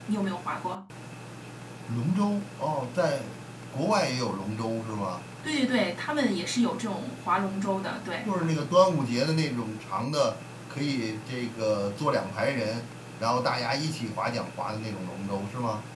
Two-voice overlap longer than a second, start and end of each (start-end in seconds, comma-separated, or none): none